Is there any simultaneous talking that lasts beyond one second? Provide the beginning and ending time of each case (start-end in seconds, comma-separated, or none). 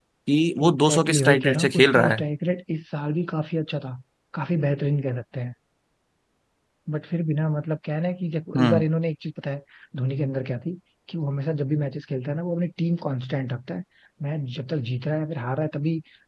0.6-2.2